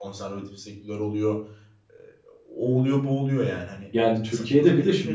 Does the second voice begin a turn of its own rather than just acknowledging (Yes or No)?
Yes